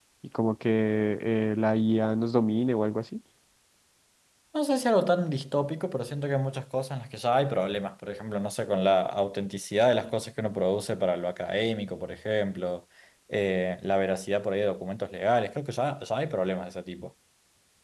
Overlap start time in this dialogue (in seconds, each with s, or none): none